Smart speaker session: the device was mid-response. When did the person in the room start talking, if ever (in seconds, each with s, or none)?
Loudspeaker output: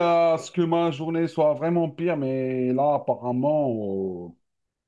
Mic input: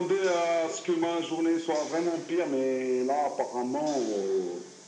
none